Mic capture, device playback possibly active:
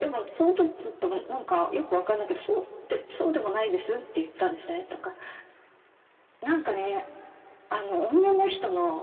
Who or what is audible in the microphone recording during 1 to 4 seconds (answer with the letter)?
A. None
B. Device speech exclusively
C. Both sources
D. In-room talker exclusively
B